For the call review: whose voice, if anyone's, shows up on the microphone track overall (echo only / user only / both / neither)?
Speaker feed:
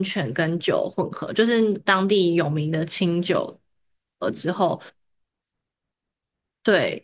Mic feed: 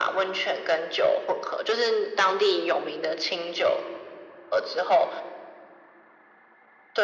echo only